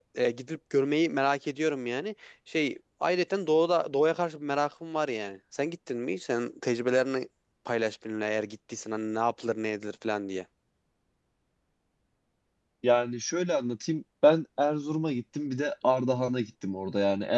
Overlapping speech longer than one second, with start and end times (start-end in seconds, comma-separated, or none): none